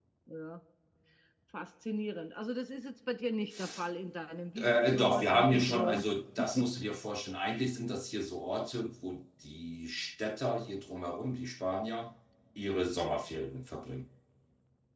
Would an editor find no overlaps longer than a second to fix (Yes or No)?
No